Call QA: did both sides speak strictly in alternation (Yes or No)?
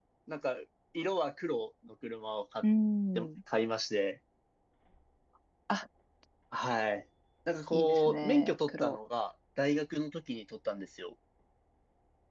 No